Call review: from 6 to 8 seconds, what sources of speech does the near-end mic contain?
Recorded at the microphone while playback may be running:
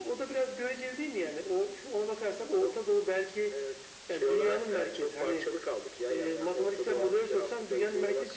echo only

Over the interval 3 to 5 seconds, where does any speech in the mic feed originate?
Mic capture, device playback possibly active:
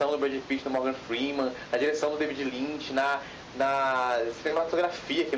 echo only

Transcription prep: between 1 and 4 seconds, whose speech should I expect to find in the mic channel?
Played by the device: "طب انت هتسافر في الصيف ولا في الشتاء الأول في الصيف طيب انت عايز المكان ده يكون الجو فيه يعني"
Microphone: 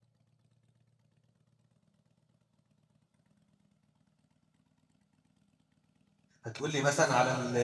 neither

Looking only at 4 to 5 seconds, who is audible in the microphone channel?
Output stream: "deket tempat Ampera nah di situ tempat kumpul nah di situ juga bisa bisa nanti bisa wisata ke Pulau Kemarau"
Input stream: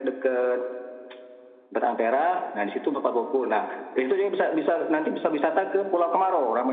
echo only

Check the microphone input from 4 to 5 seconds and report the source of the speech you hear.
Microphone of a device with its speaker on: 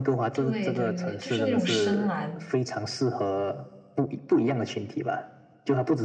echo only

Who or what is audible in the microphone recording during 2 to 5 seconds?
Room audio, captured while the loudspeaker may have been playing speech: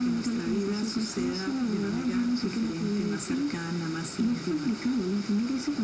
echo only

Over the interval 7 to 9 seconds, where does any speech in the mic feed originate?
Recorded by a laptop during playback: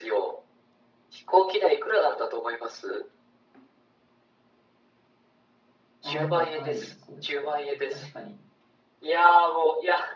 both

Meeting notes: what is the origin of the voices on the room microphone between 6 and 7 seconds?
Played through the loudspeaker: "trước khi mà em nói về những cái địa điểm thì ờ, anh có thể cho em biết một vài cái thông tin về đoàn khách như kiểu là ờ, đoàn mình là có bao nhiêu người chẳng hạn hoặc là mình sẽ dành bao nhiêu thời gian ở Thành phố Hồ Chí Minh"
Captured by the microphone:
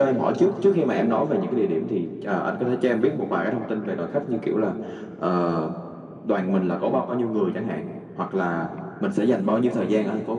echo only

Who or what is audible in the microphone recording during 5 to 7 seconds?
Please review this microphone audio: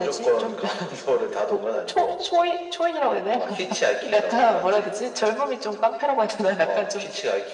echo only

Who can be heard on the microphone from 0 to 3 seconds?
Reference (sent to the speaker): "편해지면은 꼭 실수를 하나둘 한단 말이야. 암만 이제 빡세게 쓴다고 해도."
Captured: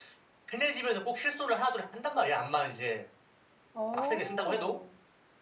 echo only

